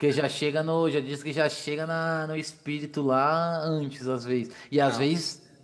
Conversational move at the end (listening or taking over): listening